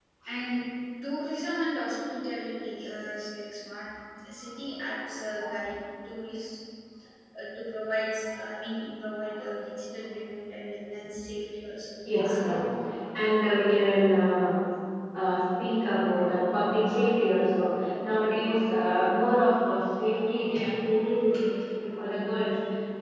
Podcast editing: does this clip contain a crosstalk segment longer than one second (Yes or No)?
No